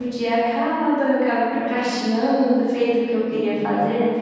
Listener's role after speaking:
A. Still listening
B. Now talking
A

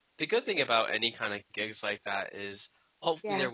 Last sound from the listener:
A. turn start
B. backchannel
B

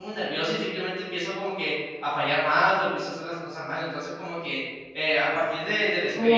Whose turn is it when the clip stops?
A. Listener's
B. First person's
A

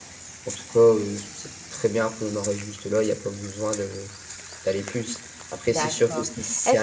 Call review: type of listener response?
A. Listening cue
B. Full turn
B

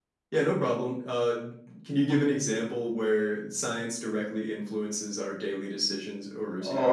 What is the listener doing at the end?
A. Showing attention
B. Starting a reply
B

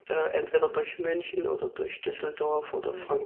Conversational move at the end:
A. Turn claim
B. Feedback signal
A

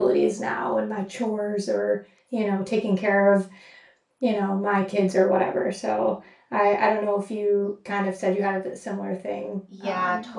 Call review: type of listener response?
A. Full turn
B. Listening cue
A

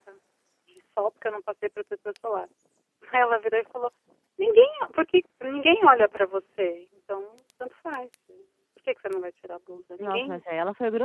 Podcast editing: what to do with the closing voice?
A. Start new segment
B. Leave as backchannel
A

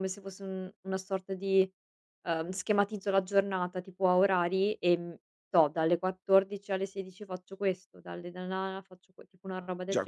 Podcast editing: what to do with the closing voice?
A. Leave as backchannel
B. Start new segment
B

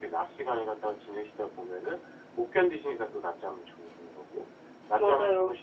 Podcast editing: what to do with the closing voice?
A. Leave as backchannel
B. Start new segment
A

